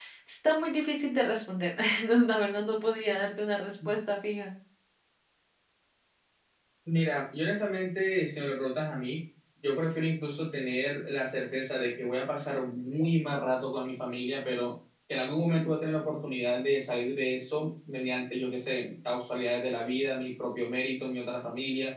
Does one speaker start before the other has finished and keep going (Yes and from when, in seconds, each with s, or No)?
No